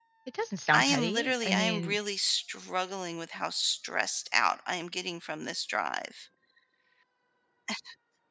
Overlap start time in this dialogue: 0.7 s

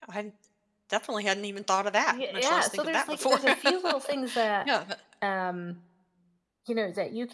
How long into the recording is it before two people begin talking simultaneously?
2.1 s

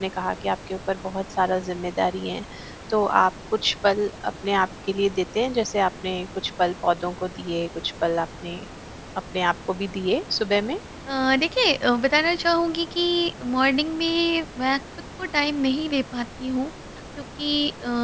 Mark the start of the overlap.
none

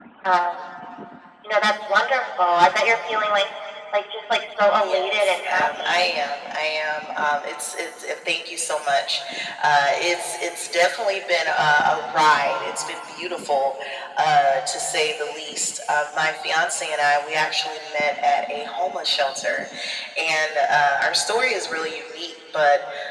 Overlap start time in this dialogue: 4.8 s

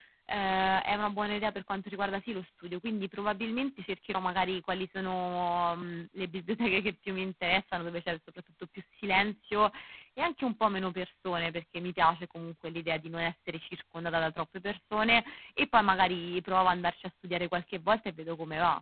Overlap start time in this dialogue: none

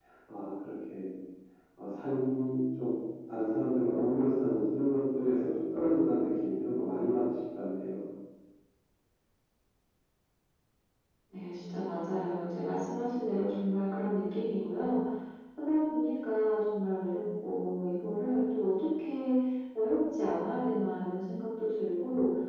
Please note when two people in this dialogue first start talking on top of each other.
none

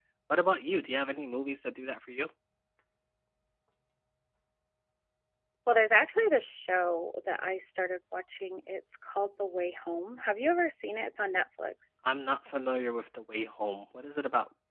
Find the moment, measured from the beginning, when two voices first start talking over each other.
none

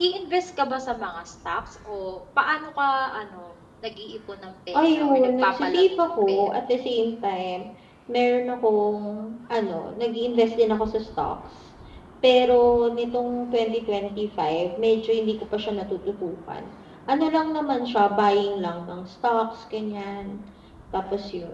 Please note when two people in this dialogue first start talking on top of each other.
4.7 s

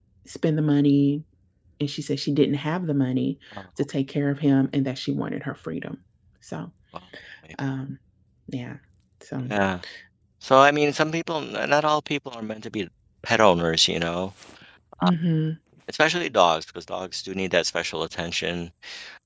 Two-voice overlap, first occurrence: none

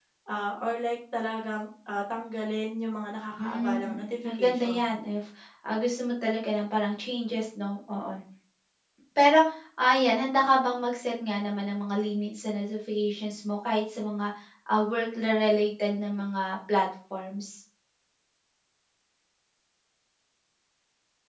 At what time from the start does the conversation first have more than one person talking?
3.4 s

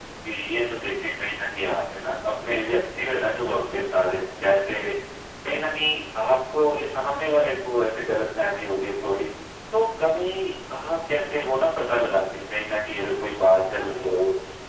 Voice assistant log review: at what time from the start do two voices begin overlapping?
none

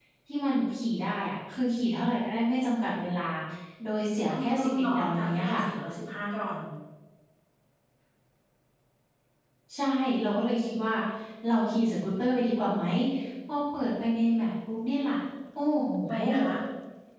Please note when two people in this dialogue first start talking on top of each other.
4.3 s

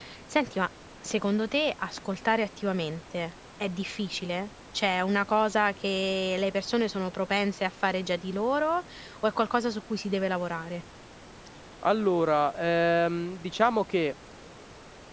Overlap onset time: none

